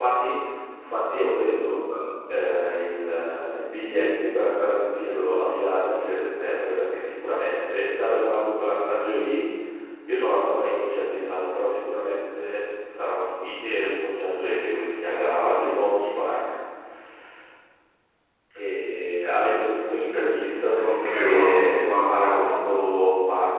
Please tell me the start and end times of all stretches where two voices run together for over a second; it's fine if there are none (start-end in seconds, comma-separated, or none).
20.8-22.7